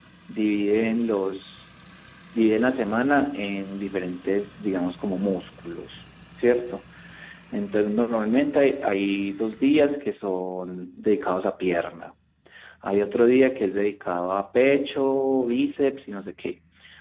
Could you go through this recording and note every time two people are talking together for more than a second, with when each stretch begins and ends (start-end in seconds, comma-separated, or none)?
none